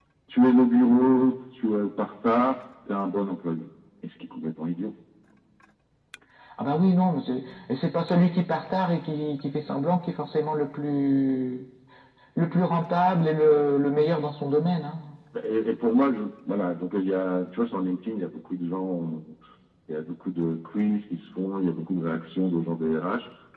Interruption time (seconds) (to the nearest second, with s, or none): none